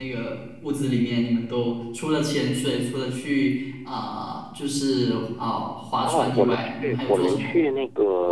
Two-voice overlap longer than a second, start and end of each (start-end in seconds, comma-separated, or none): 6.0-7.6